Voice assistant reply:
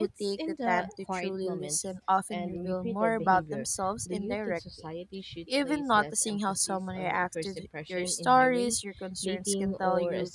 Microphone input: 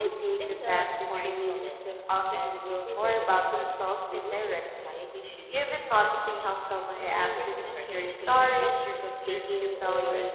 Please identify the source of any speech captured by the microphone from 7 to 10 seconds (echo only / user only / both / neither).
both